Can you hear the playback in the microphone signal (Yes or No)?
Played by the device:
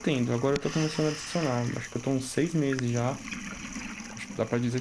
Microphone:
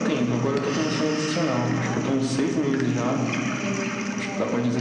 Yes